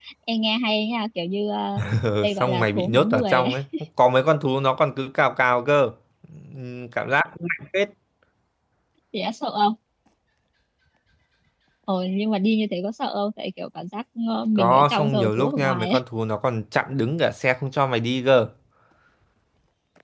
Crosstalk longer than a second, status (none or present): present